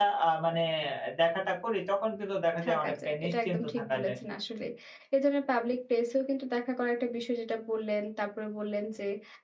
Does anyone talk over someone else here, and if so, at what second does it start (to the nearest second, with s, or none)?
3 s